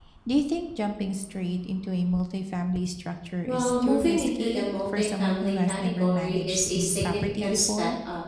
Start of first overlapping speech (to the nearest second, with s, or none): 3 s